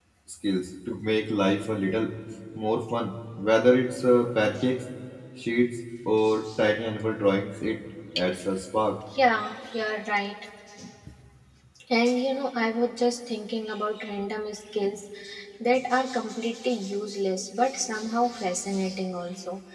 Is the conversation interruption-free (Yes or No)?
Yes